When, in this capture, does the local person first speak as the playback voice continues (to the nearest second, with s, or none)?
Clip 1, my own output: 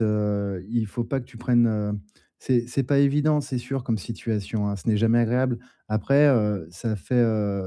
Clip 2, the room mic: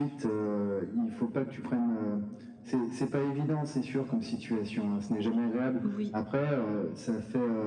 6 s